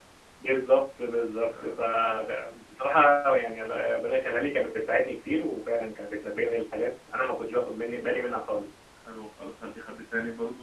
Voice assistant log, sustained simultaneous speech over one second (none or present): none